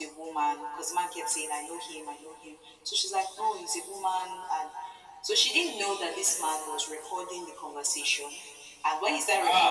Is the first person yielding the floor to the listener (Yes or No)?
No